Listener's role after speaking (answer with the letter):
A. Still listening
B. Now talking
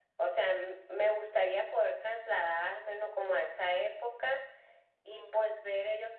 A